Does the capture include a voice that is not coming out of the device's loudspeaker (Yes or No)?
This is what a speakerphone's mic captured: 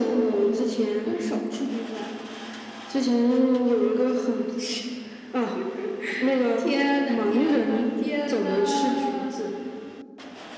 No